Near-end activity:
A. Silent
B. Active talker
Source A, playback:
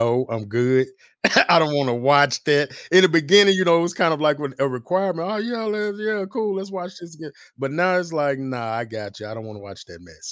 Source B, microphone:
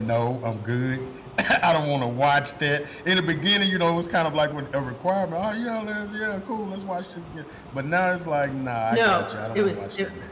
B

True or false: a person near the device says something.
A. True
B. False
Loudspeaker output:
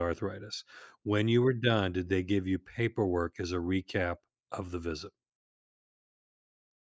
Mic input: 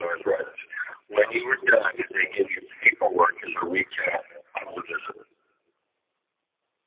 B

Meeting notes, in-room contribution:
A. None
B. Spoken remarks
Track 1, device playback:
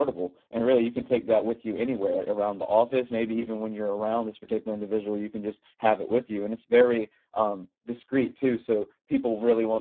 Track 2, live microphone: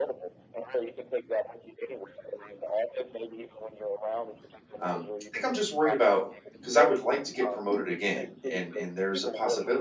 B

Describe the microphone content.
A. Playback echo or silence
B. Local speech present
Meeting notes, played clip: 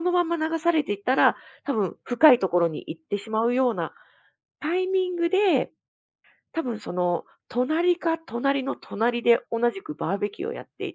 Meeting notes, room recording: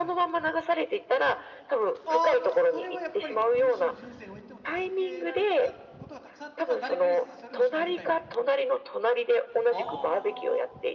B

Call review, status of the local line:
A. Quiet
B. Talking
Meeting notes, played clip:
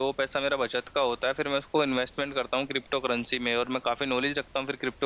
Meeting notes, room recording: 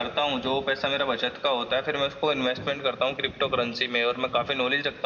A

